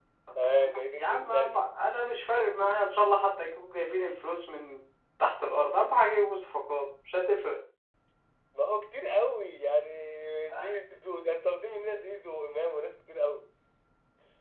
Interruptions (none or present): present